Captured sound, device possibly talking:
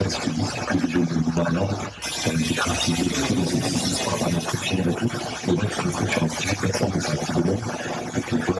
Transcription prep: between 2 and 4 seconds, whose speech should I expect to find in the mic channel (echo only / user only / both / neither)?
both